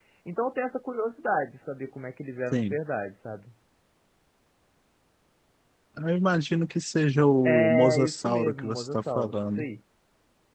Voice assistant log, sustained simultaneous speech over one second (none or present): present